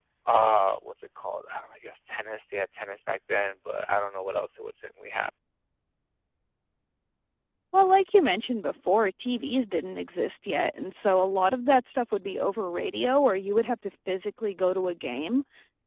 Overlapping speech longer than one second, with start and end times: none

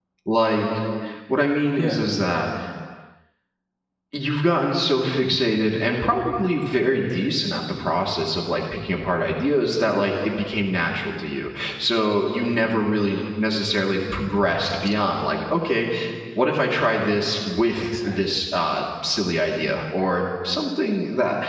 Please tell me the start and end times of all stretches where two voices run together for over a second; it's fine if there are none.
none

